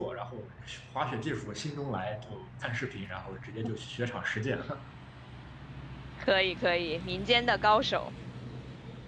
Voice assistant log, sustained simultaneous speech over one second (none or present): none